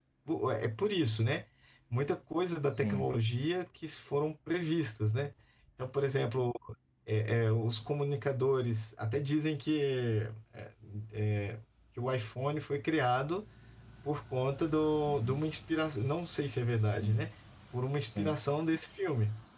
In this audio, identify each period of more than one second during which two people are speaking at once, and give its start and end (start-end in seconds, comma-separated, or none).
none